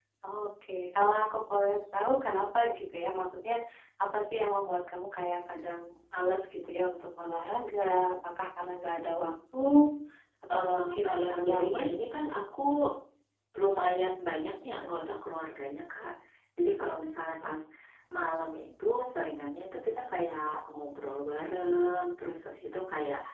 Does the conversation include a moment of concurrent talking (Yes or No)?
Yes